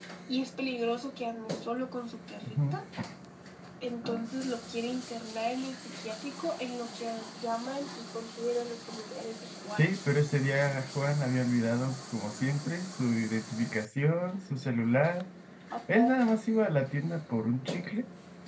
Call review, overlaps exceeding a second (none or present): none